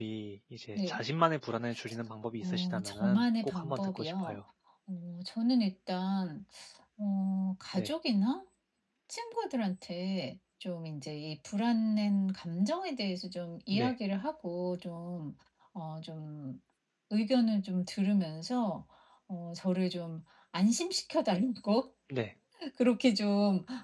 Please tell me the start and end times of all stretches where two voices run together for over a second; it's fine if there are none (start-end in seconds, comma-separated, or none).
2.4-4.4